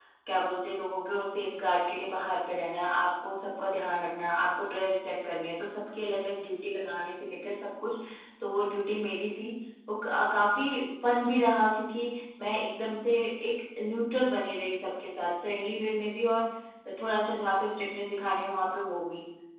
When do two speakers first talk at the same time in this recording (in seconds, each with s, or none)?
none